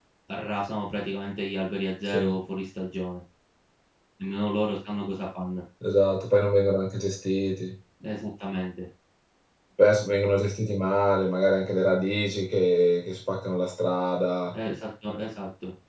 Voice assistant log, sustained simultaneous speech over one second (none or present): none